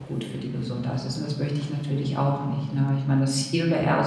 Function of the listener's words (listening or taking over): listening